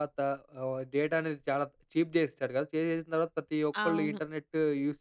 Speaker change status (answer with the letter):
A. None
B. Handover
A